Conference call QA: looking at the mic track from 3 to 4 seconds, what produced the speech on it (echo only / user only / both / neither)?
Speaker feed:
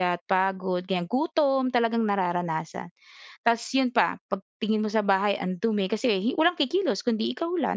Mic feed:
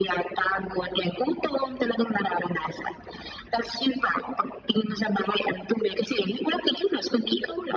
echo only